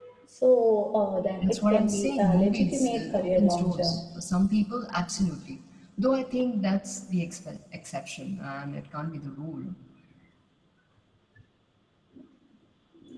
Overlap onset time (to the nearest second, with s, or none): 1 s